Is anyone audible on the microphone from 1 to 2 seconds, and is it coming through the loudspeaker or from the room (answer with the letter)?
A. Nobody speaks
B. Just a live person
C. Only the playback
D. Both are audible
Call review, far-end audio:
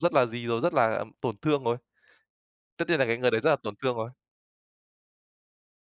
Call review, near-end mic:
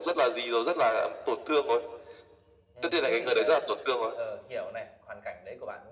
C